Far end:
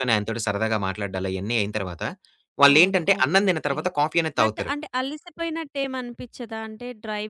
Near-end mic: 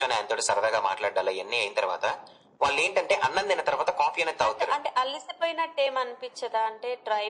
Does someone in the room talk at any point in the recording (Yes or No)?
No